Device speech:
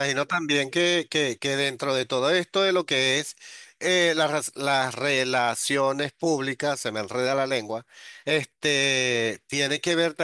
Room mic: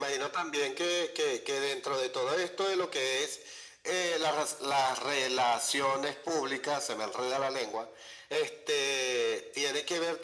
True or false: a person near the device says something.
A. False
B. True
A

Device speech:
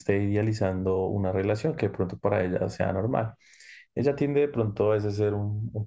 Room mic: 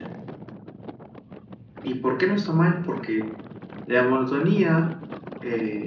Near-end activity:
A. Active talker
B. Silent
A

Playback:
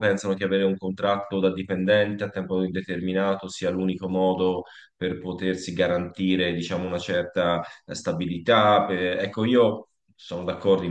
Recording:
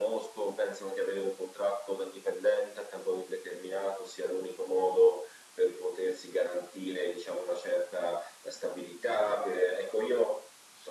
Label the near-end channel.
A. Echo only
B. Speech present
A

